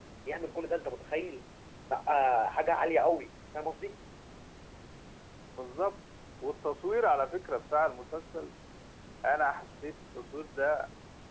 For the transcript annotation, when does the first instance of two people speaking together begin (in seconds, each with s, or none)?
none